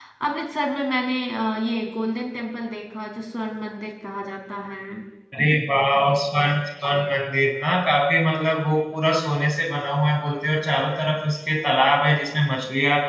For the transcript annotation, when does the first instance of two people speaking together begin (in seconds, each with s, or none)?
none